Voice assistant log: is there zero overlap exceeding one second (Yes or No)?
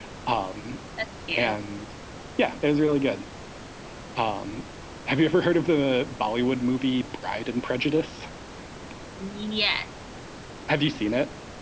Yes